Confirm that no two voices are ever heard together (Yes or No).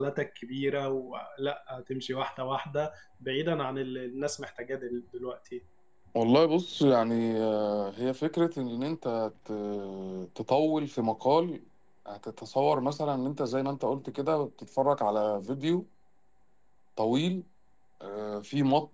Yes